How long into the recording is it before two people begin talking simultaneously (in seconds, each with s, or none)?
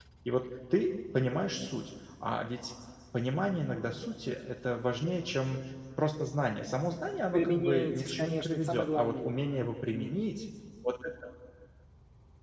7.3 s